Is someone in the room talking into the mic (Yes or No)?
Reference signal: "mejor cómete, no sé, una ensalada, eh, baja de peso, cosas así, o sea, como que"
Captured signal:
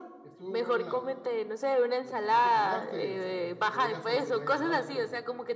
Yes